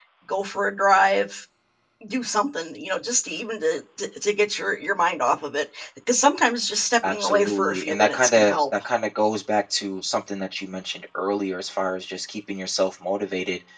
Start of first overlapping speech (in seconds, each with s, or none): 7.0 s